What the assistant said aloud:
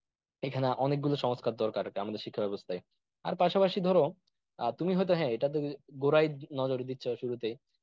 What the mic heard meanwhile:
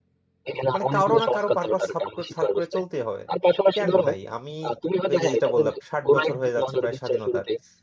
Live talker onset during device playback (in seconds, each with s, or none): 0.7 s